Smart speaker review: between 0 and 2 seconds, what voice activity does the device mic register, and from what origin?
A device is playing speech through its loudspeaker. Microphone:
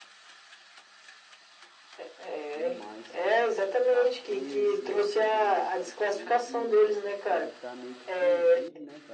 neither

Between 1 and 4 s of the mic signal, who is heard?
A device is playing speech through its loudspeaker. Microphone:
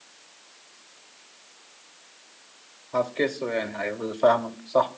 user only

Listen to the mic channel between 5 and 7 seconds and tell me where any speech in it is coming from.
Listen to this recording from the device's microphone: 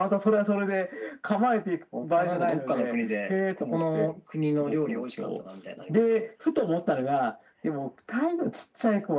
echo only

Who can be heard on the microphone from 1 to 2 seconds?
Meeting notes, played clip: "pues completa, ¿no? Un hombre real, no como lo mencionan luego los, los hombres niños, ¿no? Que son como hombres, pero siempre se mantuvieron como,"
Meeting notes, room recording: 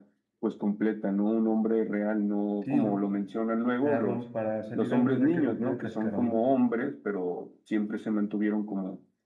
echo only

